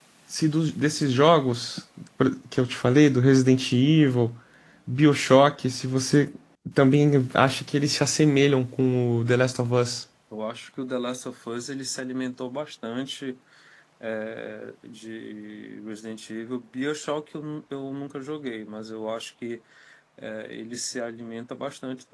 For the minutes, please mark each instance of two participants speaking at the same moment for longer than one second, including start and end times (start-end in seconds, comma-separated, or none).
none